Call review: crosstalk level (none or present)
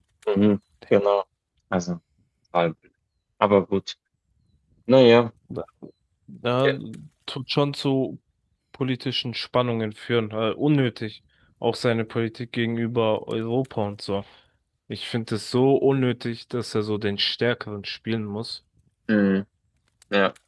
none